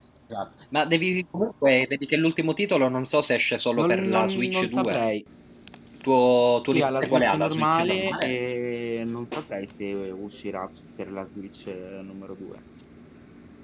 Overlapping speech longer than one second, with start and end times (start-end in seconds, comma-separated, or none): 3.8-5.0, 6.7-8.4